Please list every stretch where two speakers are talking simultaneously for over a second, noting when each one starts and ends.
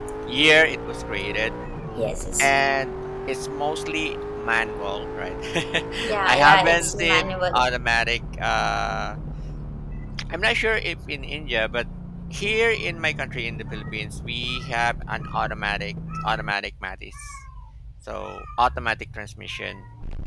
6.2-7.6

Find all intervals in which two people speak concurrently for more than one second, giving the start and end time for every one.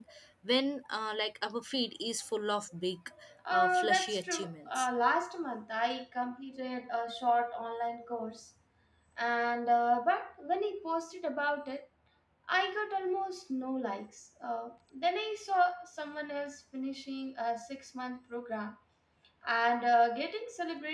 3.5-4.9

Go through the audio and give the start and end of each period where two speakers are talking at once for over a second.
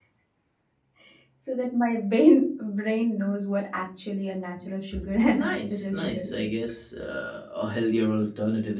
5.3-6.5

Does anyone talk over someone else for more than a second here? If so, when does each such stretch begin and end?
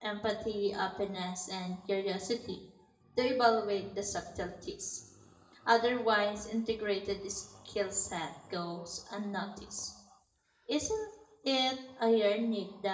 none

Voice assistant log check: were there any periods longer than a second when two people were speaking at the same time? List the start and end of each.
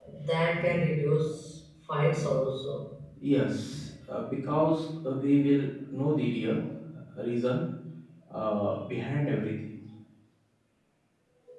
none

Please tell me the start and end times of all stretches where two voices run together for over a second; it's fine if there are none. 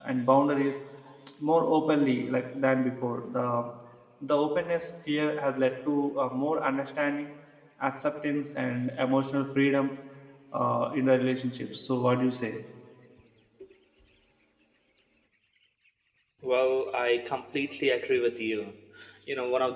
none

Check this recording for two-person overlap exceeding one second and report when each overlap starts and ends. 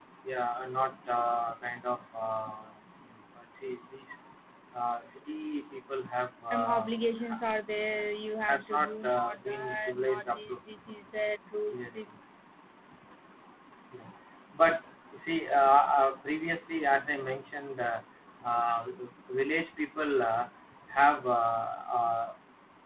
8.5-10.6

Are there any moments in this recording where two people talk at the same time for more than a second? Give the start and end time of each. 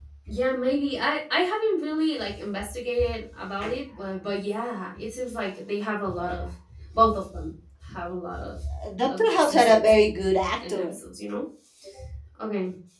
9.1-11.0

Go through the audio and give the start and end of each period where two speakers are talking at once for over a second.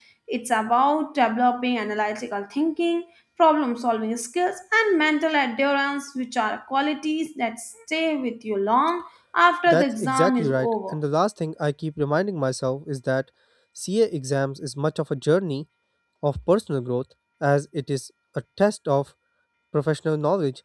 9.7-11.0

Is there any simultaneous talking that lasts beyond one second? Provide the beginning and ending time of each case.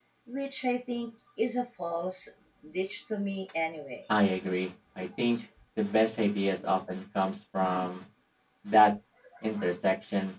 none

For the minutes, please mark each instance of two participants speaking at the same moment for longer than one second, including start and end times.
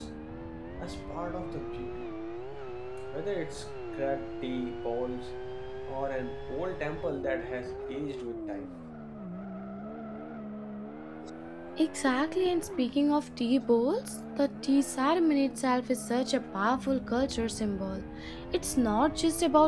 none

